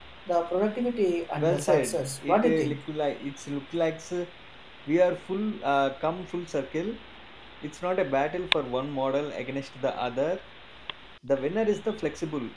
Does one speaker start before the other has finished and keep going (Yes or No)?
Yes